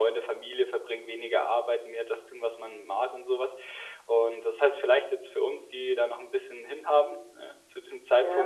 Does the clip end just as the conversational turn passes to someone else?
No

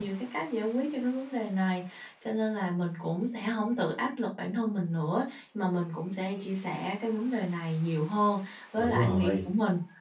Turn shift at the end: No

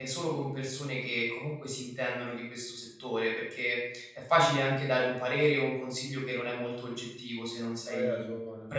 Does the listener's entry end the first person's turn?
No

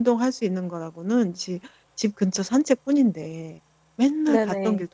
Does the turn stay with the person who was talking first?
Yes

